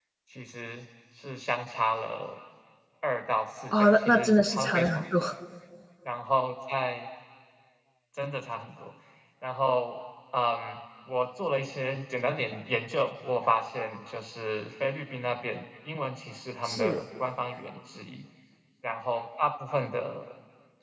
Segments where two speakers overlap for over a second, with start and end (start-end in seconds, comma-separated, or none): 3.7-5.2